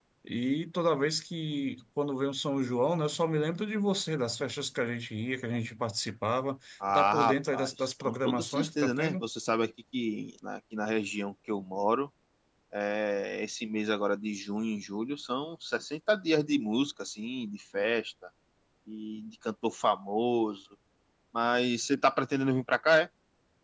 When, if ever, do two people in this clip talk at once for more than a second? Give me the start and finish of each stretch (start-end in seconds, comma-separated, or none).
6.9-9.2